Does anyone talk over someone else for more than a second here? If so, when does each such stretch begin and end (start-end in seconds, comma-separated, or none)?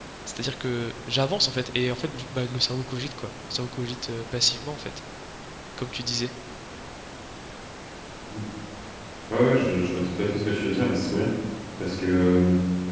none